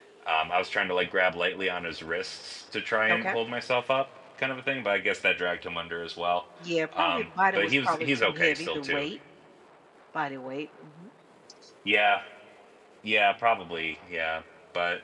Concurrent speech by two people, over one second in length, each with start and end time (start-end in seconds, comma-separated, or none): 7.0-9.1